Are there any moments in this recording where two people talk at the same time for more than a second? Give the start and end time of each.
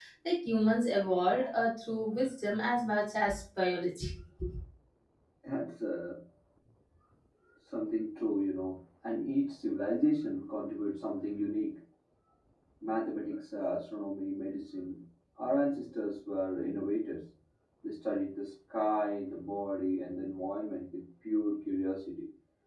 none

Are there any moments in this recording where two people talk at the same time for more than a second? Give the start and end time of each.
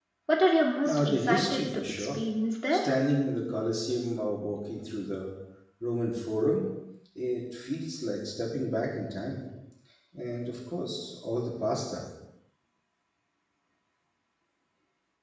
0.9-2.2

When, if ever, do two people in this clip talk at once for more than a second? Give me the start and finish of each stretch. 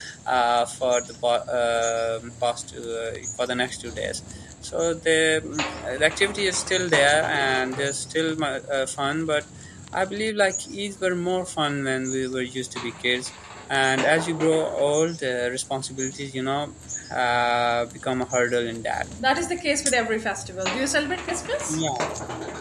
none

